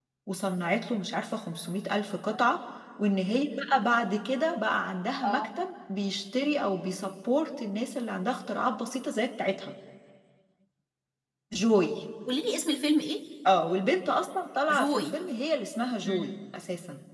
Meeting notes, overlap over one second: none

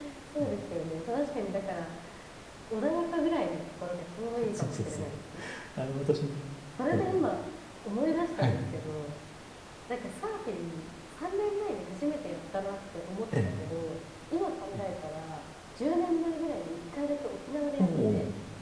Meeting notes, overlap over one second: none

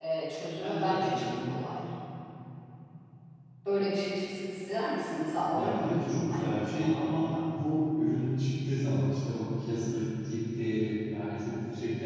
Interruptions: present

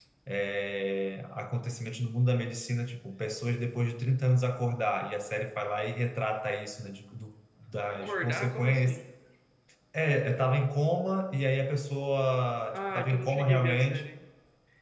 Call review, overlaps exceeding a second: present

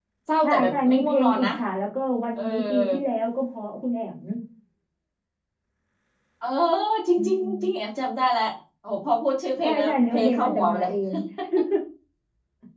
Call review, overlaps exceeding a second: present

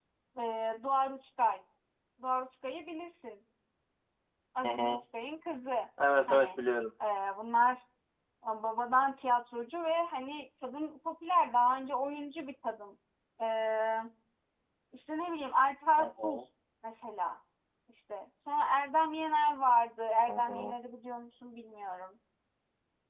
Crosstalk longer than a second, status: none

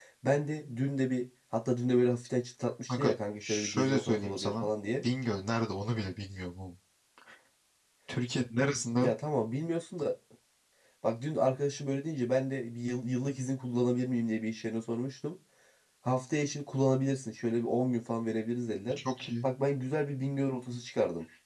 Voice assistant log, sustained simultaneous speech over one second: present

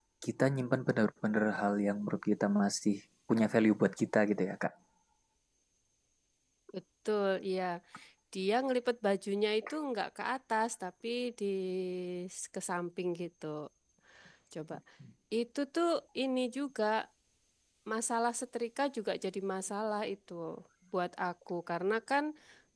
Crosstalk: none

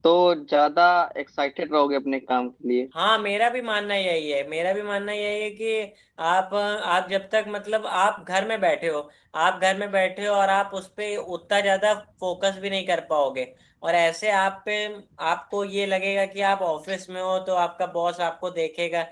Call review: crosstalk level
none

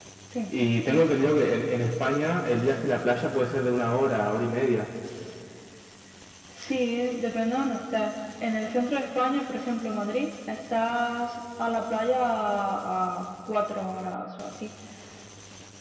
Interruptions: none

